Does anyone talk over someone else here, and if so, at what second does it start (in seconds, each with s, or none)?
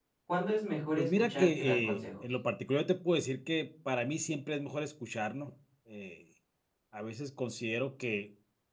1.0 s